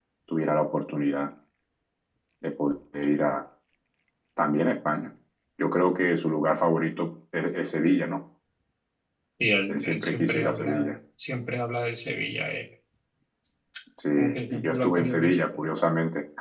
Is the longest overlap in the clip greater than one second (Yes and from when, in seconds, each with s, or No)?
Yes, from 9.7 s